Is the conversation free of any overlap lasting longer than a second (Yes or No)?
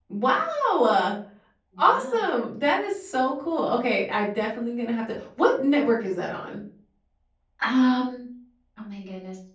Yes